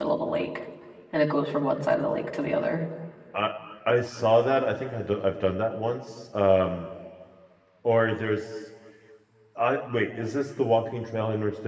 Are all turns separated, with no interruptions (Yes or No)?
Yes